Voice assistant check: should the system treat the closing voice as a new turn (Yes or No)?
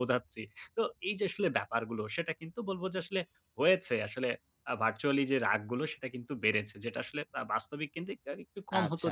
Yes